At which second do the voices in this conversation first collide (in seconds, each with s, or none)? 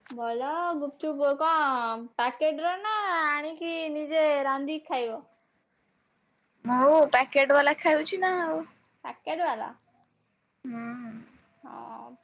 none